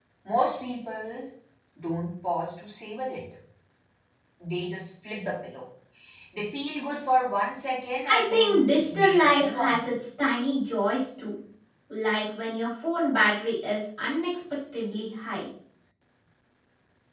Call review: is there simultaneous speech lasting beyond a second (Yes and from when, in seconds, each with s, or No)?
Yes, from 8.1 s